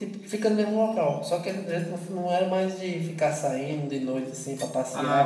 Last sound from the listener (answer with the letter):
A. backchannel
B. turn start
B